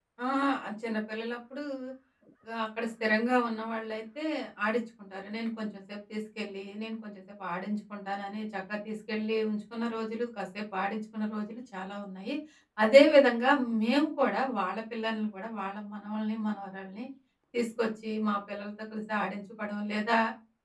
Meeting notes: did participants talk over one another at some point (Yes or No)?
No